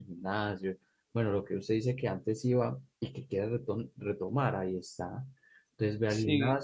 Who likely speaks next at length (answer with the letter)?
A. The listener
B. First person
B